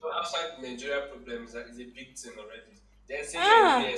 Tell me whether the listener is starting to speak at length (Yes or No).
No